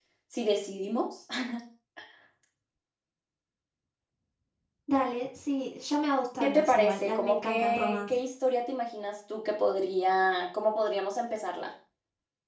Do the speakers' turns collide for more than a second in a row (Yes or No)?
Yes